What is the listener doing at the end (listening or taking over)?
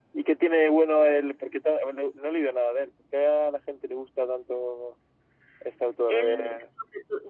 taking over